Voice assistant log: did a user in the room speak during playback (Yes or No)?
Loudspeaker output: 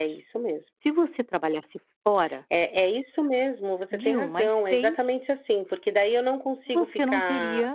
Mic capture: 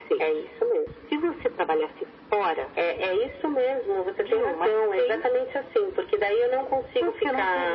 No